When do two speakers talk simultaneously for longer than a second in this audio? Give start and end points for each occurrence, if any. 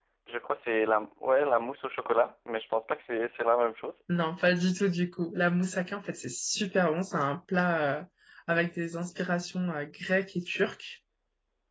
none

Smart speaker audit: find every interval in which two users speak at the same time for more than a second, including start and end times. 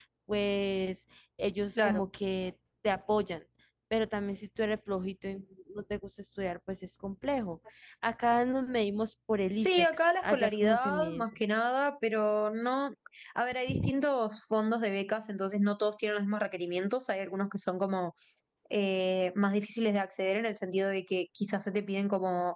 9.6-11.2

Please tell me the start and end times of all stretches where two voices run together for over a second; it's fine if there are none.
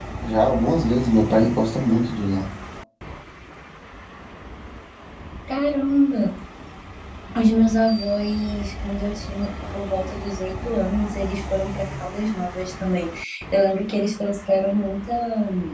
none

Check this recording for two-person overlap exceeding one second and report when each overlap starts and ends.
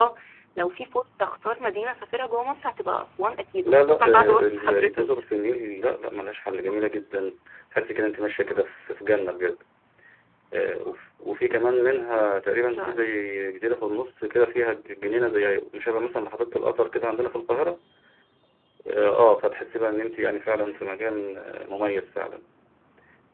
3.6-5.1

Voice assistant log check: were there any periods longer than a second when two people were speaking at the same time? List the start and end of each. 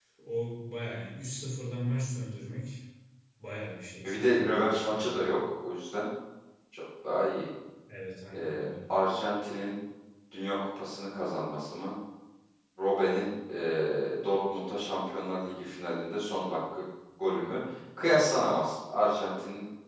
4.0-5.3

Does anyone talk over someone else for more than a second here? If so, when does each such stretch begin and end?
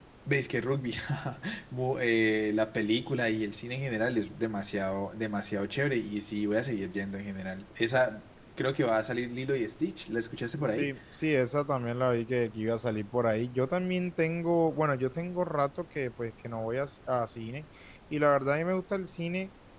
none

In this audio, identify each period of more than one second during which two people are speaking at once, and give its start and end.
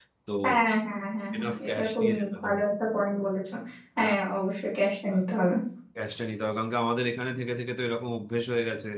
1.4-2.6

